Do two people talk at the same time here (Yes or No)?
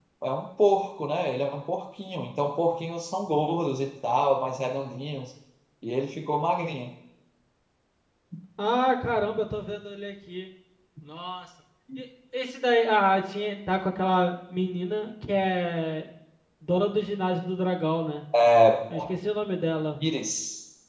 No